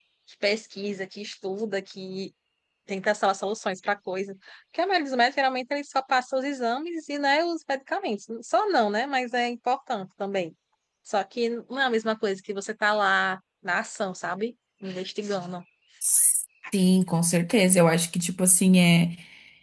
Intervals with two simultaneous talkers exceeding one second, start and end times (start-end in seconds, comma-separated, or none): none